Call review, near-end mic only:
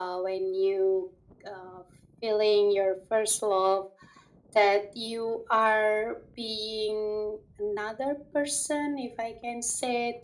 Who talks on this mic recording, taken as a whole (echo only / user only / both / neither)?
echo only